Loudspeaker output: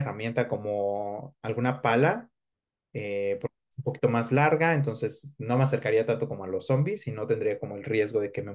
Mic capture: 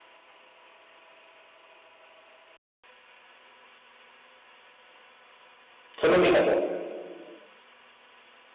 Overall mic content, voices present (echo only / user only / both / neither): user only